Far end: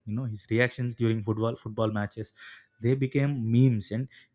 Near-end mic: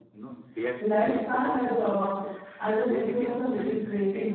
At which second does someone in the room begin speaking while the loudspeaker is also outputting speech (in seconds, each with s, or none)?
0.8 s